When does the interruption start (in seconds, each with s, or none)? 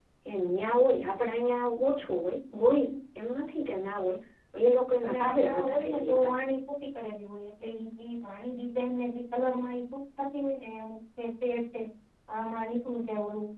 5.0 s